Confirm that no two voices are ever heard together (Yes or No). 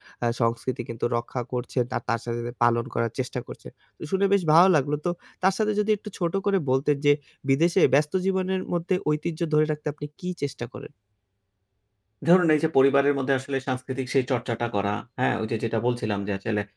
Yes